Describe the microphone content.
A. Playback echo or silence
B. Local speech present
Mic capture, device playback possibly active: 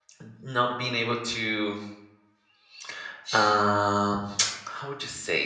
B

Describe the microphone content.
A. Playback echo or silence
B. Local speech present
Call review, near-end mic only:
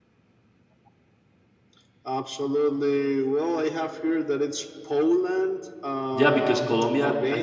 B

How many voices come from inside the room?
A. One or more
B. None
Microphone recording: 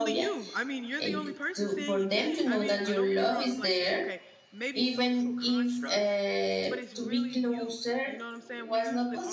A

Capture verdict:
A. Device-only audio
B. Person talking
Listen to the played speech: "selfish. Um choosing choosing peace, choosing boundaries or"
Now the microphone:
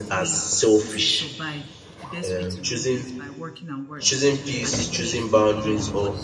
B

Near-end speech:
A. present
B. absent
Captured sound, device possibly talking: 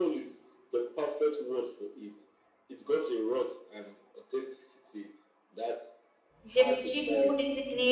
A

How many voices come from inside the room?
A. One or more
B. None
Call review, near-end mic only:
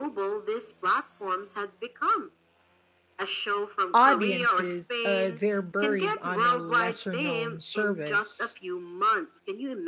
A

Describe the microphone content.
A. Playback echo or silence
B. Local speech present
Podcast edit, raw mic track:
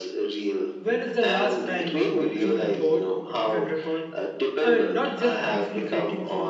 B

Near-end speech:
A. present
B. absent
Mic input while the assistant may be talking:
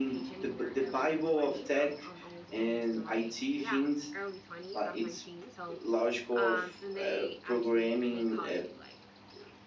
A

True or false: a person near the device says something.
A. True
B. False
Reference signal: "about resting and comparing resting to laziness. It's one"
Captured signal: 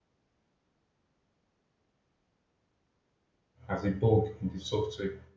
A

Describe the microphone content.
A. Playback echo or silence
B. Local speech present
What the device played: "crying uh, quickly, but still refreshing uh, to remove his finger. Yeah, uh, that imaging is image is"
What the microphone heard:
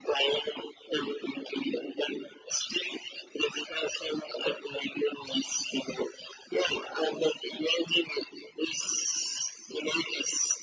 A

